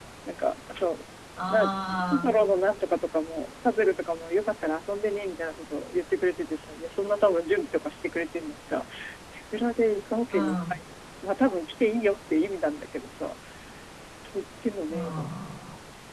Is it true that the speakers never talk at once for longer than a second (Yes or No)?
Yes